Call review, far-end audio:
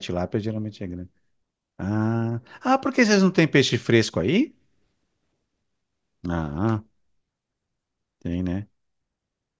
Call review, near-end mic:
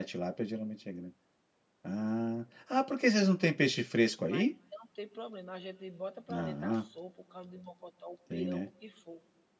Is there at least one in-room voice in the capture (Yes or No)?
Yes